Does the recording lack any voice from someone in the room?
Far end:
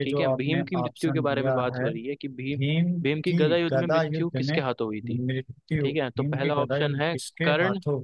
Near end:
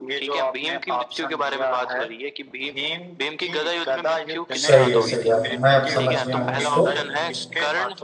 No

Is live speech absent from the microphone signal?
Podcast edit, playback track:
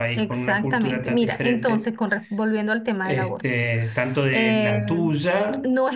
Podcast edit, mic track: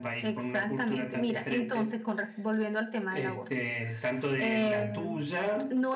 Yes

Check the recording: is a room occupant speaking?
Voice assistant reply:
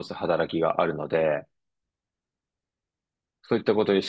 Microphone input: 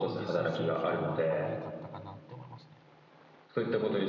Yes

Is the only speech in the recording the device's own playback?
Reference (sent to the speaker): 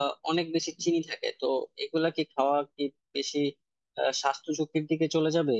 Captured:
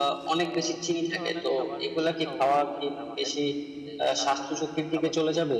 No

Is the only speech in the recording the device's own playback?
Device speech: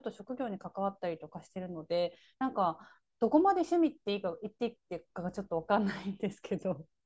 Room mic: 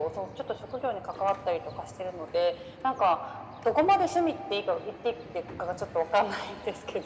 Yes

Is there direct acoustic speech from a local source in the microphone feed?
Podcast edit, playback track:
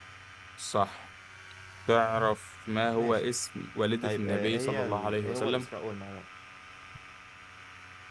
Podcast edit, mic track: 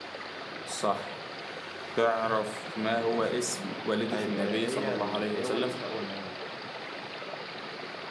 No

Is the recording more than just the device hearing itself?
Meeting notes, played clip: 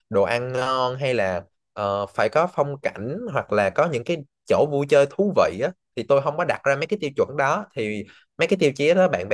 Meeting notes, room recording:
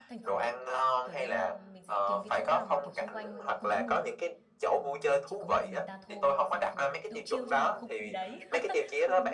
Yes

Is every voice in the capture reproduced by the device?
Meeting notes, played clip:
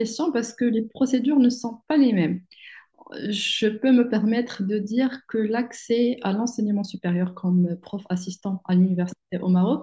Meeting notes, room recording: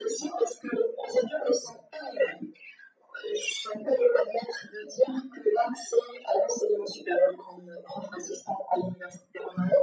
Yes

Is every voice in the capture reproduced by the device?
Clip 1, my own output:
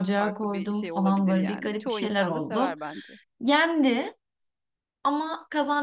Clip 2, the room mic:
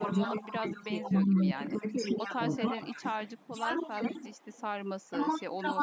No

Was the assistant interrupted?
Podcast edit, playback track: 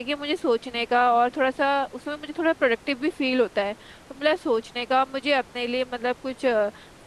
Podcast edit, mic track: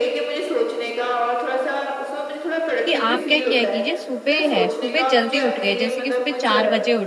Yes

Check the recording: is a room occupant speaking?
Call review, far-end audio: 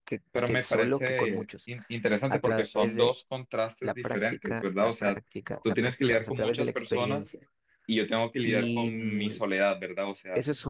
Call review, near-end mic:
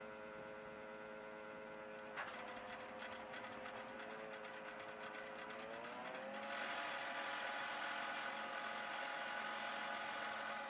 No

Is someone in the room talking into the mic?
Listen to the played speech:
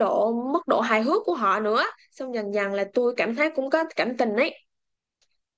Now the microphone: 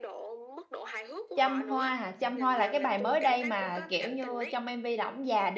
Yes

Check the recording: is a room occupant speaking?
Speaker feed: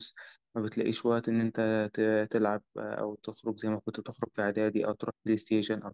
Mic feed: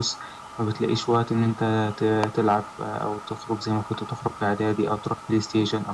No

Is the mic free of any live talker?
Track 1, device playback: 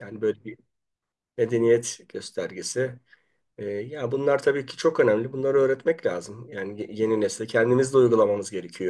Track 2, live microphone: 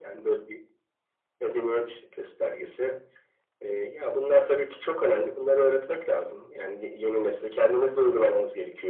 Yes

